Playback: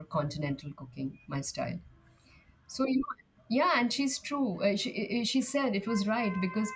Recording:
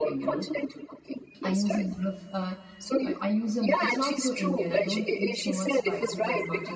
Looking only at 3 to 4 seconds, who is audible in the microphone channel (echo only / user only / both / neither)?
both